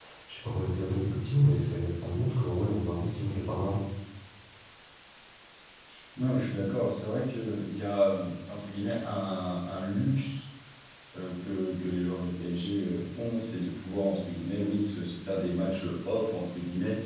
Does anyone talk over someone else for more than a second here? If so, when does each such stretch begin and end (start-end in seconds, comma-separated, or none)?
none